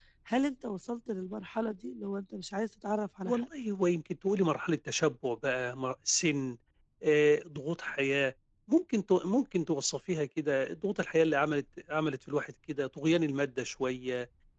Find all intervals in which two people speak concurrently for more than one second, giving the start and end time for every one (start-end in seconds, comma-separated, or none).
none